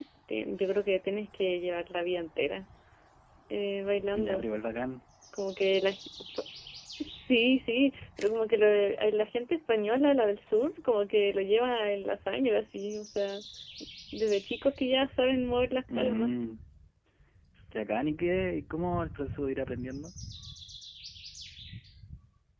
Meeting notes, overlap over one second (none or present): none